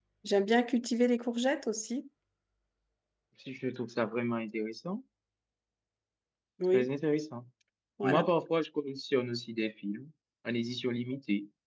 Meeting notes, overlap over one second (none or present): none